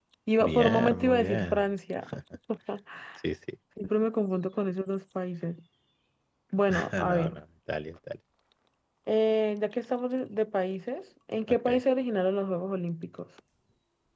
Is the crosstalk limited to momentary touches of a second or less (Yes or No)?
No